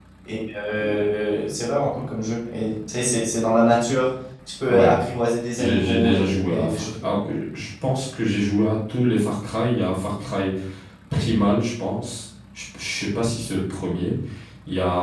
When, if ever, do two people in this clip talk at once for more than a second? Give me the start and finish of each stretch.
5.6-6.9

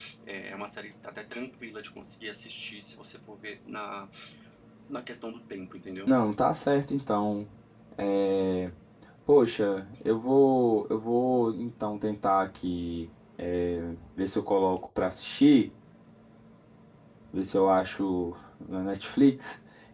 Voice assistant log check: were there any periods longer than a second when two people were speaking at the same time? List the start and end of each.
none

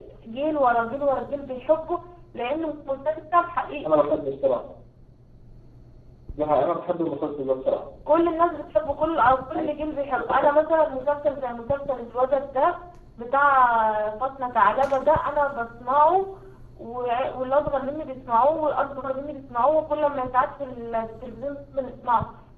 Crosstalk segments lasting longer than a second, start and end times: none

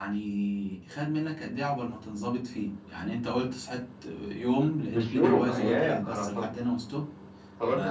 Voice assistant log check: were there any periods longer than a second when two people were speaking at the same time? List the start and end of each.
4.9-6.2

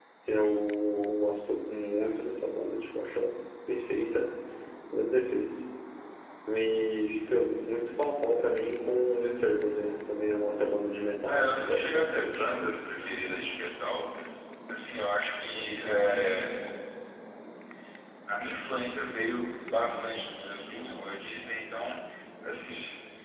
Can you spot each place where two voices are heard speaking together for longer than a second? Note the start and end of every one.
11.2-12.5

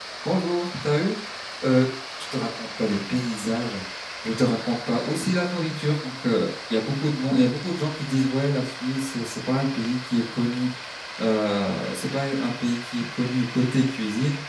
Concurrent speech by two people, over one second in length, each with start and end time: none

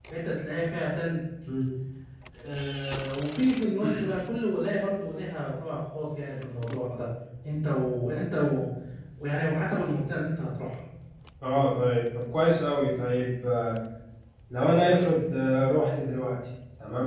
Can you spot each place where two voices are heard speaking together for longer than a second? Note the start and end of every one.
none

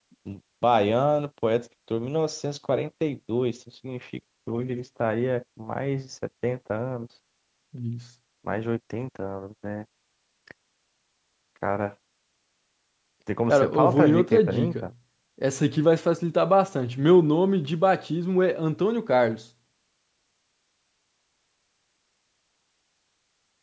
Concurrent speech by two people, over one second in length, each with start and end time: 13.5-14.9

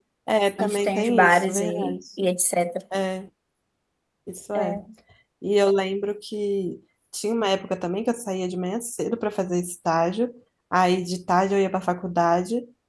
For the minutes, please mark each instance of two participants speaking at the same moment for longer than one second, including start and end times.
0.6-2.0

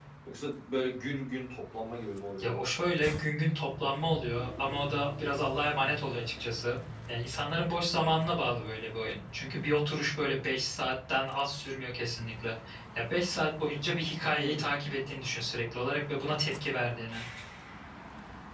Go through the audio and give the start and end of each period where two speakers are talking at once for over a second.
none

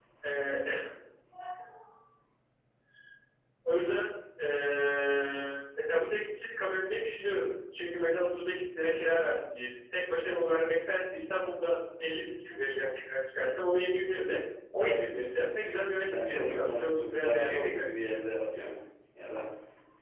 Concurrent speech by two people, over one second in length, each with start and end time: 16.1-17.8

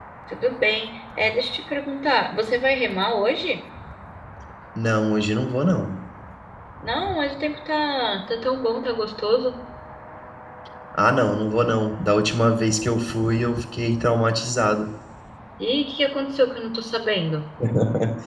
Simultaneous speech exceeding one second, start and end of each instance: none

